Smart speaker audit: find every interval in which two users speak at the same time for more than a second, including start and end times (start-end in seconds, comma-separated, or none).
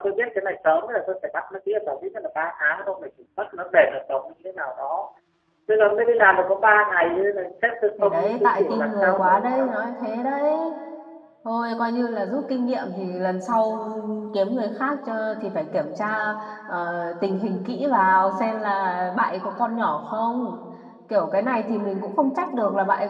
8.0-9.7